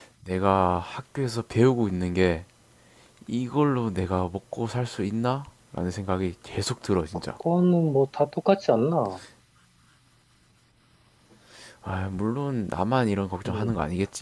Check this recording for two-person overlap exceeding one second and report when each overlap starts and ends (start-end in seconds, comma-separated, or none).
none